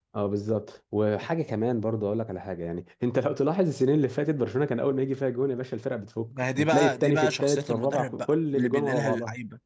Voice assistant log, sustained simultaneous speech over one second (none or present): present